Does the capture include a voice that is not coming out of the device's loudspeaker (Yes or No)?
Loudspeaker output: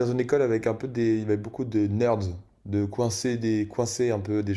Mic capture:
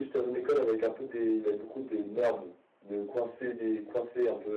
No